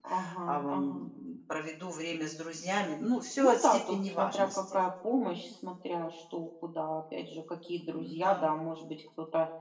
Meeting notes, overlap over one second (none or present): present